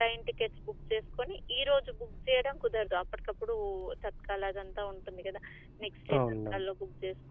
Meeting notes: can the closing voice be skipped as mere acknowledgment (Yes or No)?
Yes